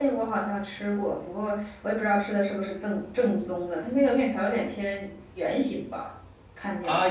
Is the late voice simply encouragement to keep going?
No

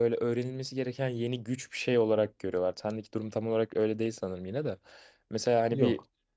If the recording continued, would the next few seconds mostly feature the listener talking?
No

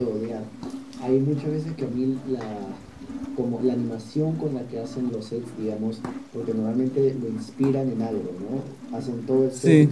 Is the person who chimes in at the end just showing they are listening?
Yes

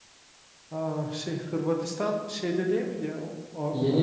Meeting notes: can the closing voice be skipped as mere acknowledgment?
No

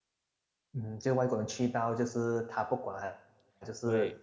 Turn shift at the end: No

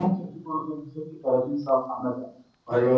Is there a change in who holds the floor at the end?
Yes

